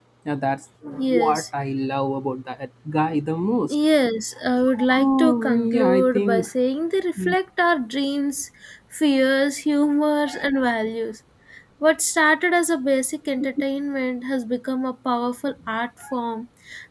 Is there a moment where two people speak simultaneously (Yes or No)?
Yes